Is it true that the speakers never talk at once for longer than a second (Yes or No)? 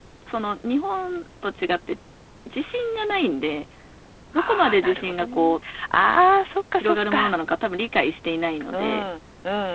No